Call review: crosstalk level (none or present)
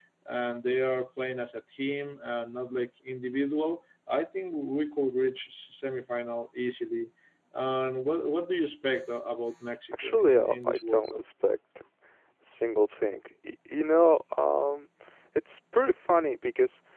present